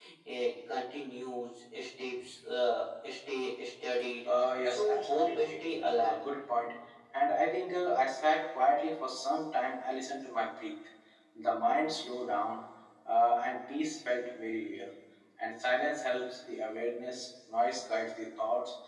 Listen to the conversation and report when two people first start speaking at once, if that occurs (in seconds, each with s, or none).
4.2 s